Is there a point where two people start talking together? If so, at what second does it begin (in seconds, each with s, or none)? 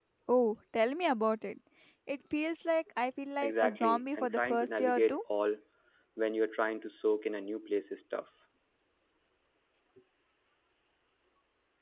3.4 s